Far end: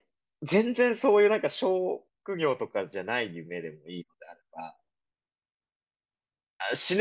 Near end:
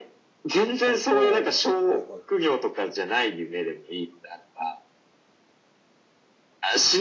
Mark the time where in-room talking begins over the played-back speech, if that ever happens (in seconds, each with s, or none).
0.8 s